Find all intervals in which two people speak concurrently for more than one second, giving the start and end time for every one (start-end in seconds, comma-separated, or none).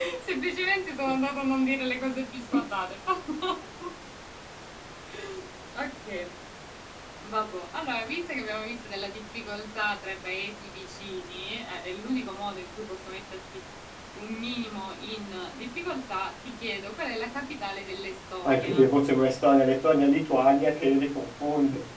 none